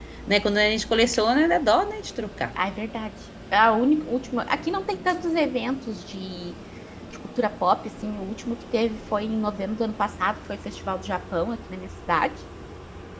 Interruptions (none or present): none